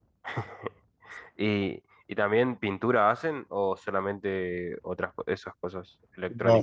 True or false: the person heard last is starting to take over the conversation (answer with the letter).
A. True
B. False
A